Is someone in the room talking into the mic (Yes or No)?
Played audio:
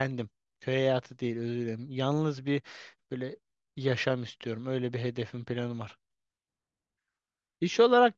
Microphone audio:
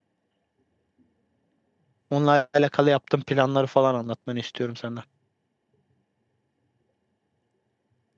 Yes